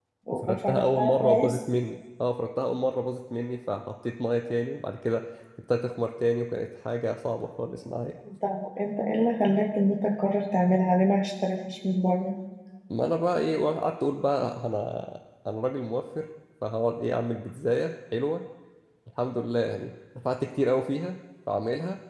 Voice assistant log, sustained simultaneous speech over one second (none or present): present